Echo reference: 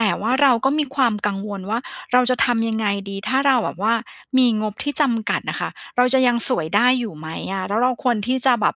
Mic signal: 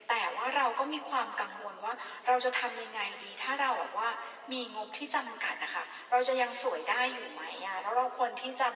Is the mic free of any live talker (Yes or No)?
Yes